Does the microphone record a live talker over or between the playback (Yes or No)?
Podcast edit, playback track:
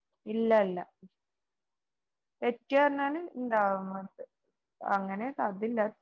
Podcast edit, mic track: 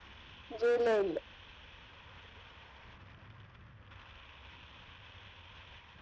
Yes